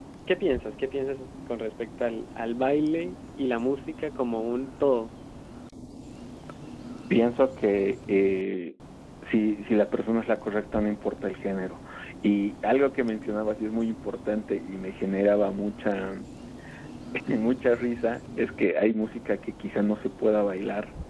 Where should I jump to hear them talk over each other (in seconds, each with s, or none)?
none